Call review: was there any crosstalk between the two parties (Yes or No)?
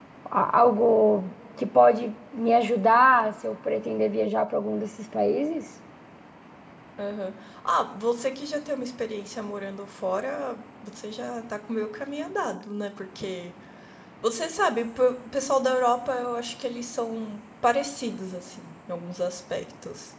No